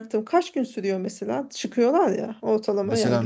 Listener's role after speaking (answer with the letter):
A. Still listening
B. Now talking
B